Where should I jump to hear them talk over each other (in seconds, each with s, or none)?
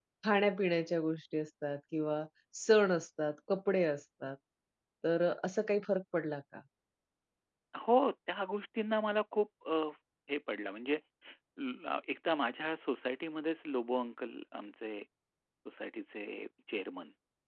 none